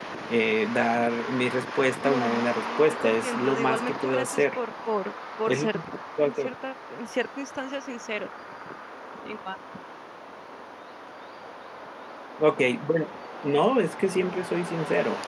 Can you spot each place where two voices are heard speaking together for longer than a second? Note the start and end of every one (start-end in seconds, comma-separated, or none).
2.0-4.6